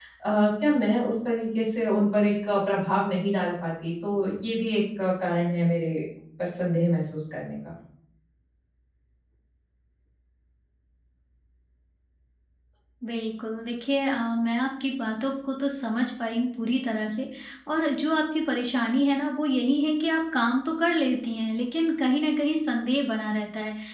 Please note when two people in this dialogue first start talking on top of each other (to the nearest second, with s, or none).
none